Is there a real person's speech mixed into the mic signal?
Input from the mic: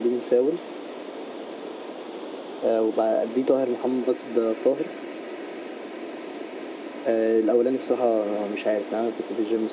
No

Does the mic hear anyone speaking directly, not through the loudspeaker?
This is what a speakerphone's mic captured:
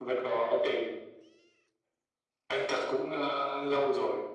No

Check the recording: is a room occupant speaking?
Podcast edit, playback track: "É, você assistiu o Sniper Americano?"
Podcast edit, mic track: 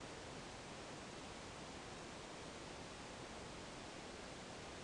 No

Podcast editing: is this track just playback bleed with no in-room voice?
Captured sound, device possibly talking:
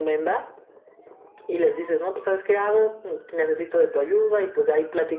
Yes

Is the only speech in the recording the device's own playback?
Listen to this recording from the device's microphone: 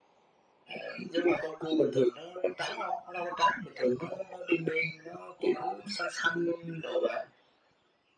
Yes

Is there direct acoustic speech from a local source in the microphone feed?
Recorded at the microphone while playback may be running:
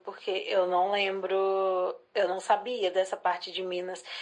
No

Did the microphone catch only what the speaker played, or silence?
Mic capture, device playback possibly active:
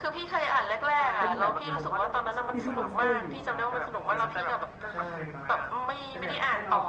No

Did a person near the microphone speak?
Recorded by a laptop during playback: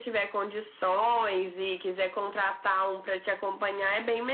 No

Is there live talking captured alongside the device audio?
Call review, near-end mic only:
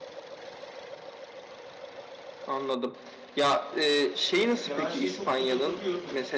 Yes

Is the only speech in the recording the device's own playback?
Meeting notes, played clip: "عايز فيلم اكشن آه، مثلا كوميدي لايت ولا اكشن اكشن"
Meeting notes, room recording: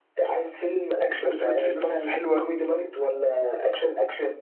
No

